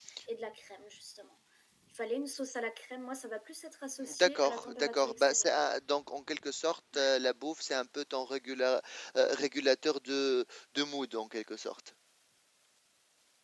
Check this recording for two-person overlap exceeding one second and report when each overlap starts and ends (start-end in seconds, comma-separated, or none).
4.2-5.5